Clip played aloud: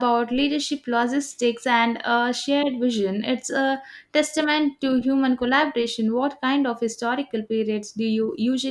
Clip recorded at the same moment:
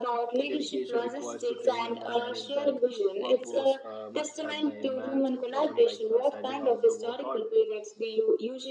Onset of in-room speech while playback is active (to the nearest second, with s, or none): 0 s